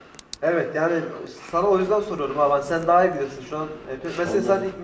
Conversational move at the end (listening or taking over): listening